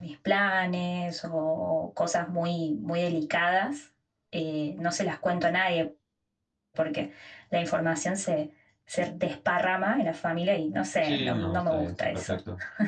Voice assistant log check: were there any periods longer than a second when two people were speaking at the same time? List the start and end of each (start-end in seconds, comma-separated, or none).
11.0-12.4